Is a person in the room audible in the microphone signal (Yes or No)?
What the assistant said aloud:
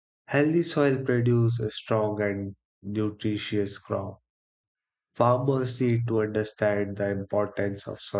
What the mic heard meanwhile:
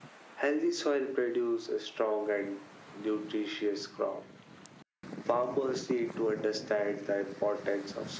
No